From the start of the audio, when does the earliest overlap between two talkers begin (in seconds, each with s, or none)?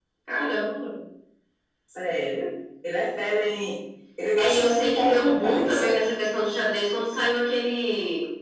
4.4 s